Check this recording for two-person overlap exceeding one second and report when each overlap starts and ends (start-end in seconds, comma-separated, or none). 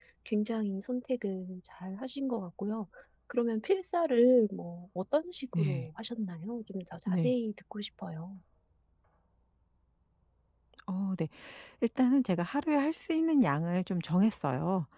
none